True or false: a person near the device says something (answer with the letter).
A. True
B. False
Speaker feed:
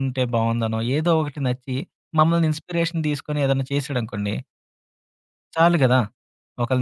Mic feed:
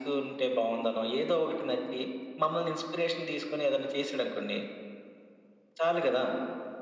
B